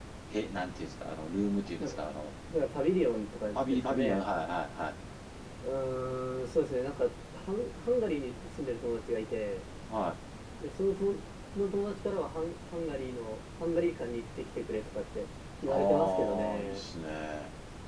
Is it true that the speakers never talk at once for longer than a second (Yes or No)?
No